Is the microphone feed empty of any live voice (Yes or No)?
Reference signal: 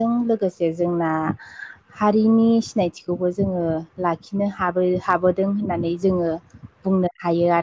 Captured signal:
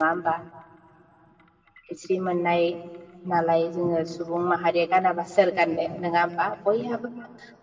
No